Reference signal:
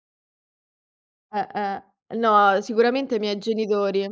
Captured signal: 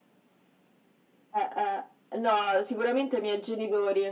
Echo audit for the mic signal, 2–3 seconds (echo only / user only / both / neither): echo only